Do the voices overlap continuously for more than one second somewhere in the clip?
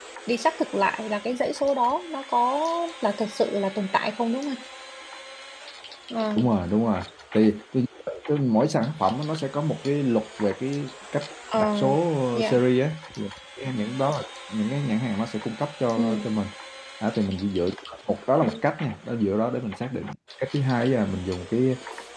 No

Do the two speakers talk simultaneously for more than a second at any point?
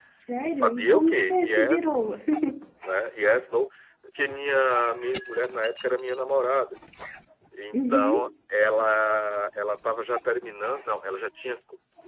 Yes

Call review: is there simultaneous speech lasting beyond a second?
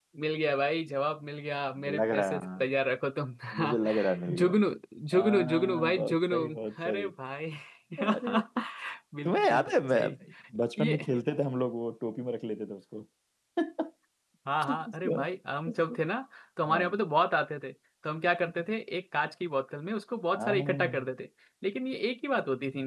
Yes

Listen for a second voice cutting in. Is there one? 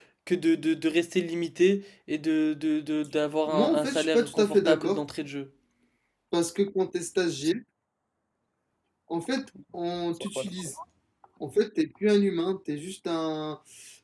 Yes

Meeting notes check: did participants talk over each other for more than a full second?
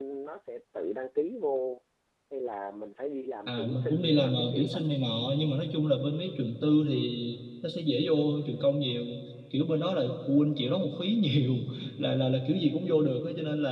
Yes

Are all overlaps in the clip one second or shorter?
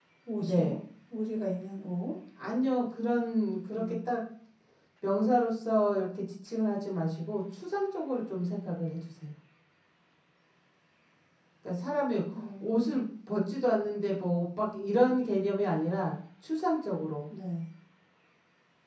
Yes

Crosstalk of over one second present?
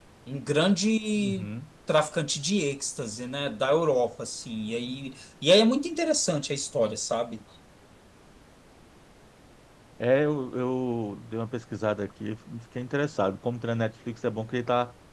No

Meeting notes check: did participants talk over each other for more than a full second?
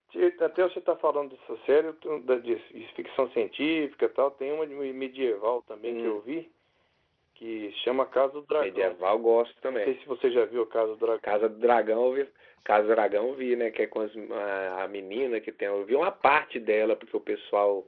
No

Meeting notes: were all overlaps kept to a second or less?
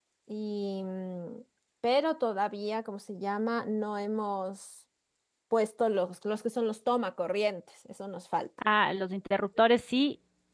Yes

